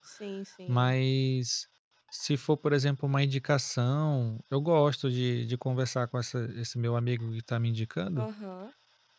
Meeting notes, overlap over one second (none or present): none